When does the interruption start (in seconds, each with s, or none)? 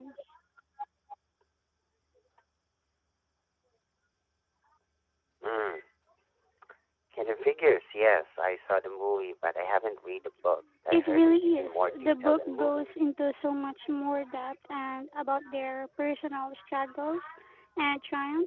10.9 s